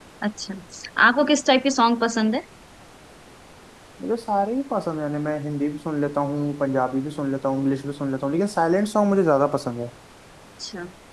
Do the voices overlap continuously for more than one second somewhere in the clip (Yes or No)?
No